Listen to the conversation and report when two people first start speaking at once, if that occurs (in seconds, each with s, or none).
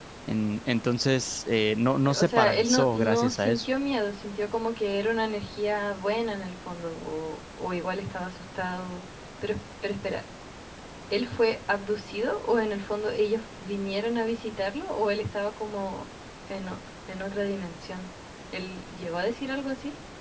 2.0 s